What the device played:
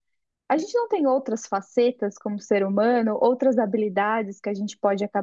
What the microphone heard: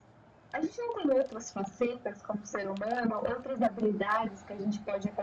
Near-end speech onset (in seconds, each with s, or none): none